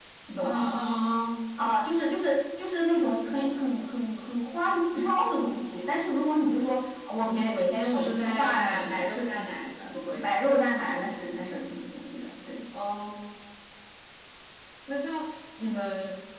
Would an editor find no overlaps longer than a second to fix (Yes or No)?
No